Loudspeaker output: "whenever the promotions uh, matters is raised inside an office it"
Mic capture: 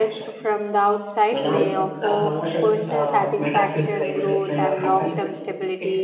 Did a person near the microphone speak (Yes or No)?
Yes